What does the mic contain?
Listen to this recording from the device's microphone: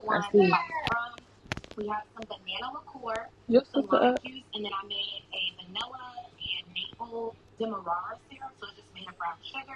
user only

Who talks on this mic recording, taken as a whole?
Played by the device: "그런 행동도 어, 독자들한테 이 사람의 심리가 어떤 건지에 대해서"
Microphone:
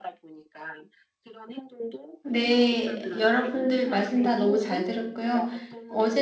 both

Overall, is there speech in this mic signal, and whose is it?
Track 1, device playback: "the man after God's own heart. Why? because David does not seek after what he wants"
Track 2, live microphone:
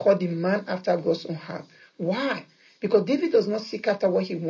echo only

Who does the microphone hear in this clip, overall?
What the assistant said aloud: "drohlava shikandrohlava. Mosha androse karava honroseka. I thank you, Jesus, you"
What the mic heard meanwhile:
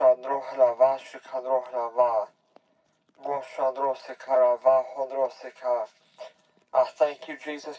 echo only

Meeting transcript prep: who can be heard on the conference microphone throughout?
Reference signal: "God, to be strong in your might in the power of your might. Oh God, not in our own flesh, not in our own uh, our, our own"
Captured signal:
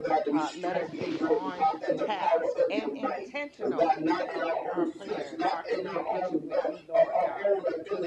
both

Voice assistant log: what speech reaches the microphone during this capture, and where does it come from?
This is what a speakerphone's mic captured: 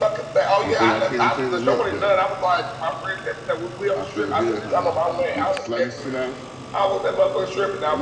both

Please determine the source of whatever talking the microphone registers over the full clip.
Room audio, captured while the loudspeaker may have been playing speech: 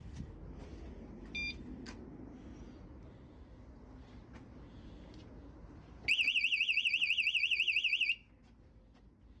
neither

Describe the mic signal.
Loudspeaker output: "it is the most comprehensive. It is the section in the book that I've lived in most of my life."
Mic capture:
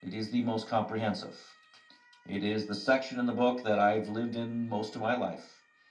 echo only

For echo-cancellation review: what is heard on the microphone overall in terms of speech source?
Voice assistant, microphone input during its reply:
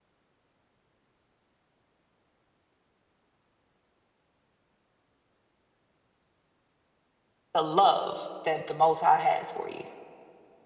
user only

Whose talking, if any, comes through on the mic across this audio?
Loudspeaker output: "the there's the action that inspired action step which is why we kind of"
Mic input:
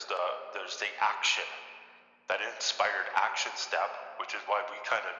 echo only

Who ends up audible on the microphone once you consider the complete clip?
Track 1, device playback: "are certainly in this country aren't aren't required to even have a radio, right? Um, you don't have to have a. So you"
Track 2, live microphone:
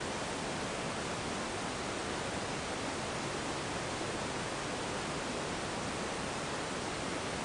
neither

